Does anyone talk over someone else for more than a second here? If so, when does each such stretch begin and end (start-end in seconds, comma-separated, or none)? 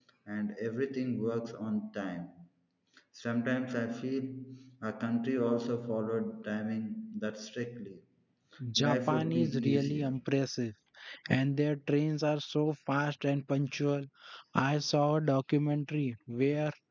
8.8-10.2